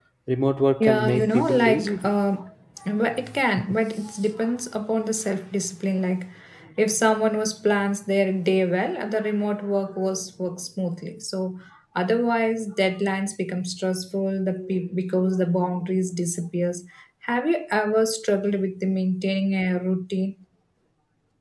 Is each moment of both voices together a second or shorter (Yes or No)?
No